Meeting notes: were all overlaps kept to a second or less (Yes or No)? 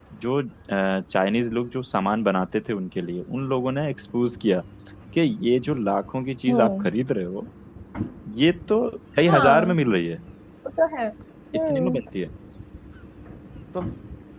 Yes